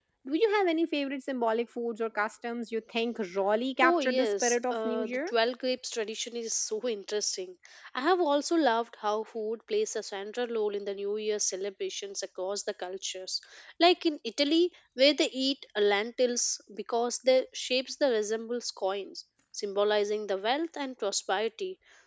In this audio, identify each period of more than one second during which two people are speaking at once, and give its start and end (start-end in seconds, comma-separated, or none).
3.8-5.3